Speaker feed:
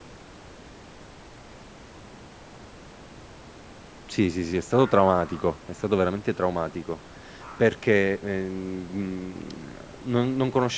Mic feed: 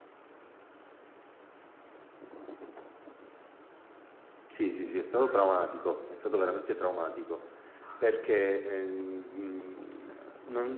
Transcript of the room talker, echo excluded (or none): none